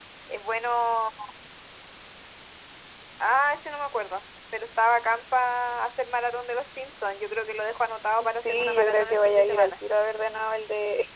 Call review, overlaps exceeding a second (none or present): present